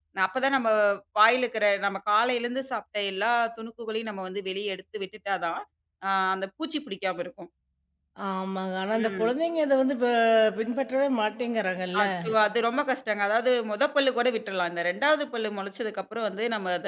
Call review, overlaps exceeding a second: none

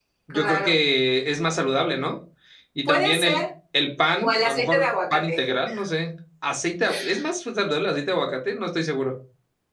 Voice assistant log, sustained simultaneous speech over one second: present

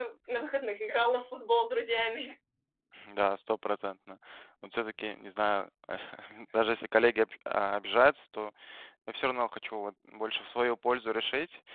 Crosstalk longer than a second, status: none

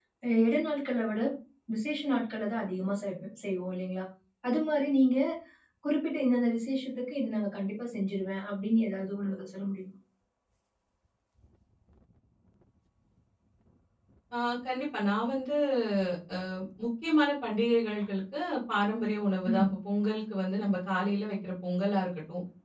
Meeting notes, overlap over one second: none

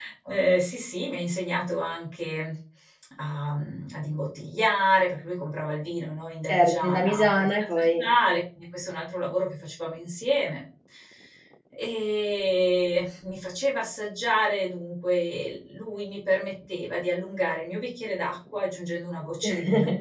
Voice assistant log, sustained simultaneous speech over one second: present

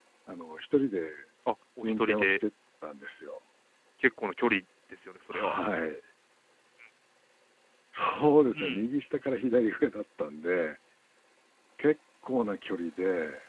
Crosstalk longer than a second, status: none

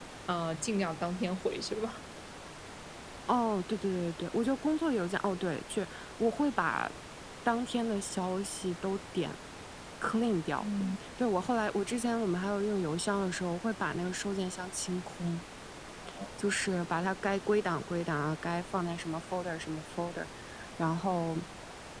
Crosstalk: none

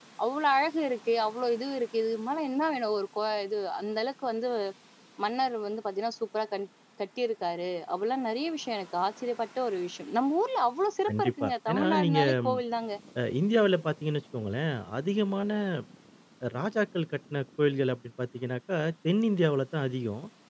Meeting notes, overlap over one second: present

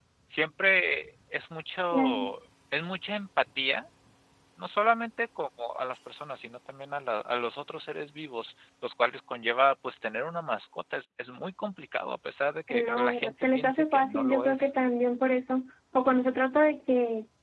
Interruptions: present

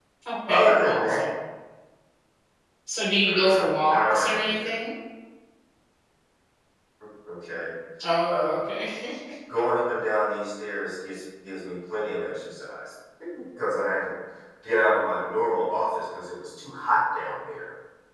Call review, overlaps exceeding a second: present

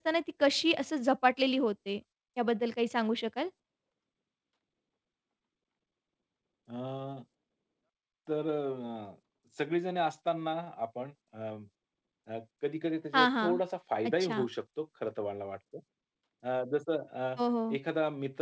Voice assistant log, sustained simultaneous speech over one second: none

